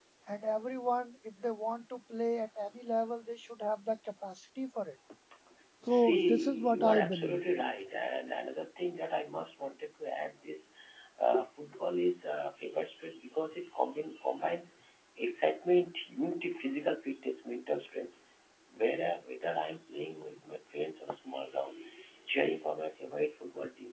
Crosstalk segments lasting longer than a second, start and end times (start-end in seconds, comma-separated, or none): 5.9-7.4